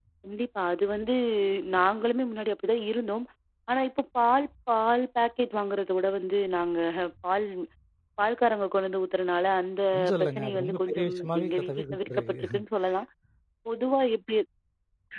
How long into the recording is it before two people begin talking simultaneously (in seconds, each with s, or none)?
10.2 s